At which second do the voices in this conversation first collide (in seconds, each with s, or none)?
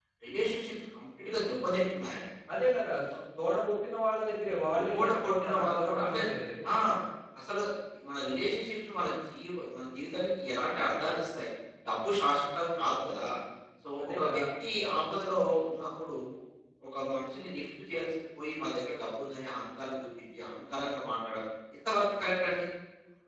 4.8 s